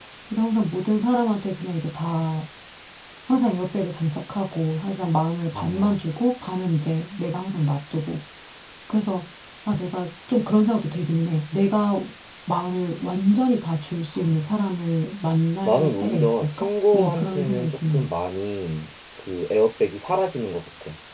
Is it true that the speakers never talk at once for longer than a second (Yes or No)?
No